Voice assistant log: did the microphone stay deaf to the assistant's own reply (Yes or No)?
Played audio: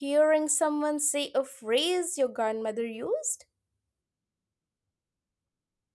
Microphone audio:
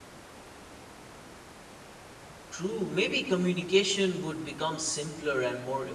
Yes